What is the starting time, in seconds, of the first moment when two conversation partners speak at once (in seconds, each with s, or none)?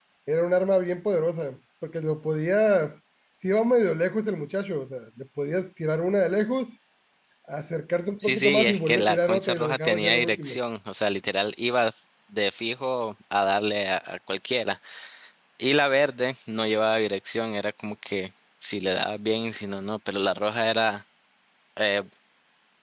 8.2 s